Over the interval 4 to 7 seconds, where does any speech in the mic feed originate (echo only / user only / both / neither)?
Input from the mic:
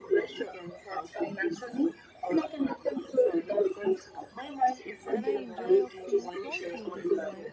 both